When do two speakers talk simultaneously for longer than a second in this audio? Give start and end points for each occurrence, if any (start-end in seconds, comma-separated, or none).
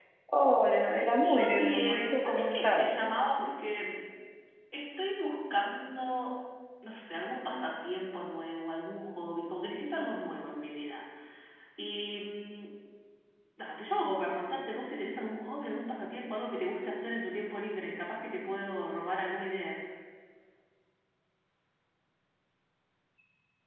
1.2-2.9